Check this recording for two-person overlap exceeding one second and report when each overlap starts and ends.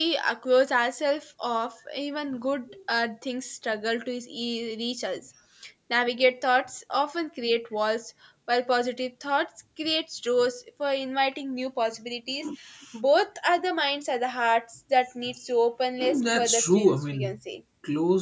16.0-17.4

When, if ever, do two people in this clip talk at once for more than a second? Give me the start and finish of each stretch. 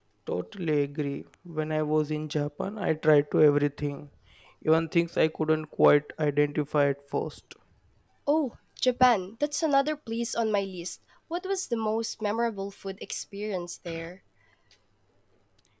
none

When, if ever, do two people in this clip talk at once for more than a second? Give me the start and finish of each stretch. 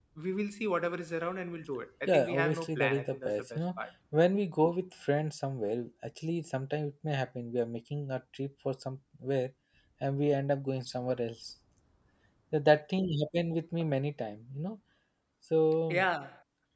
2.1-3.6

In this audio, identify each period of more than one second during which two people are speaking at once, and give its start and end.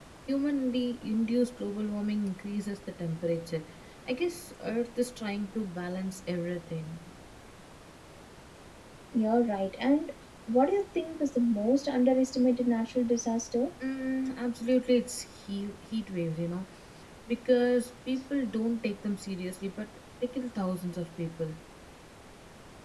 none

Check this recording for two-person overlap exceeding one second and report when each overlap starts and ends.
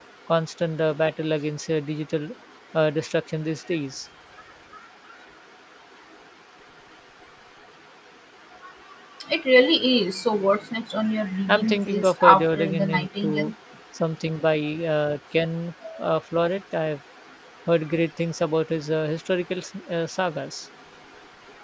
11.5-13.5

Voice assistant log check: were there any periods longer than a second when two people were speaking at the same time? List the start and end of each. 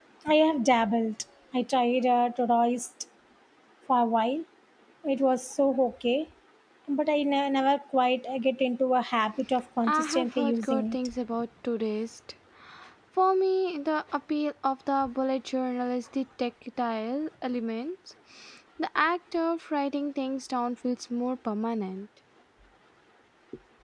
9.9-11.1

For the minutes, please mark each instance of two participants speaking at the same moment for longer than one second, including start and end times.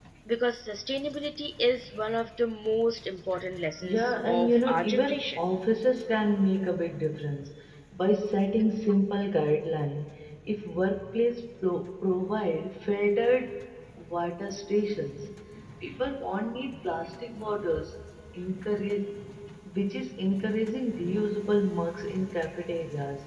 3.8-5.4

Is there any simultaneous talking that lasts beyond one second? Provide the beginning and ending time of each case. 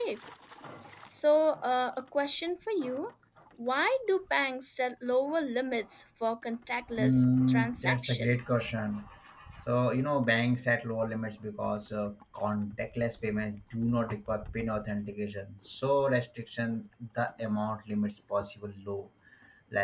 7.0-8.3

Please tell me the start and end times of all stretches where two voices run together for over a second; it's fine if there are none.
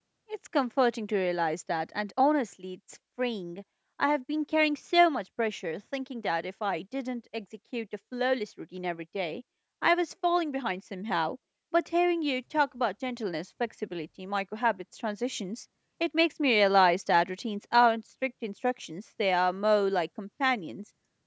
none

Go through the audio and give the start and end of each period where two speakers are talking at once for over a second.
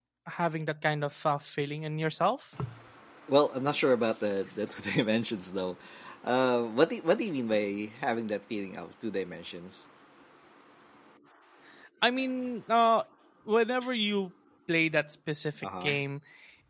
none

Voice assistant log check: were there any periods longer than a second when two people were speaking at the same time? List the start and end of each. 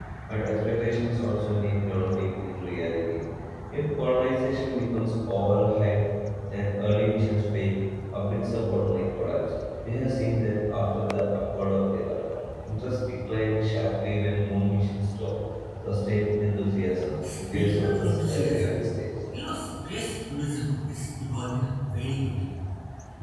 17.2-18.9

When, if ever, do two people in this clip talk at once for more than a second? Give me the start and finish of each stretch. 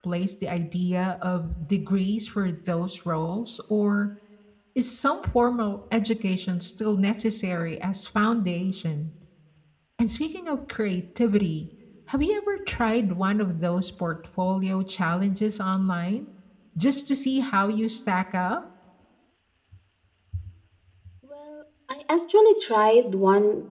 none

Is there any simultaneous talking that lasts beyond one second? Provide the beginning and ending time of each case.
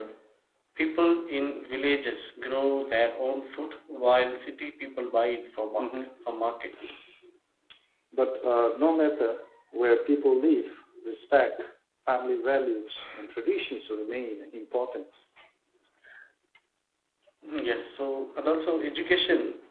none

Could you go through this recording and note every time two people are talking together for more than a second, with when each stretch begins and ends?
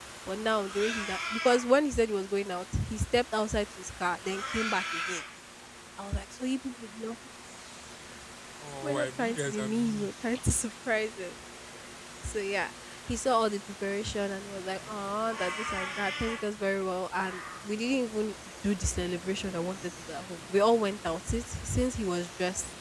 8.8-10.1

